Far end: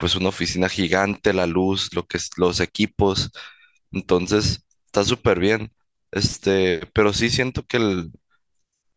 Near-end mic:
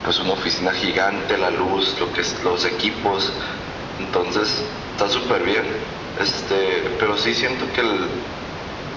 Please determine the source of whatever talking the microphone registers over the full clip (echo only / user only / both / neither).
echo only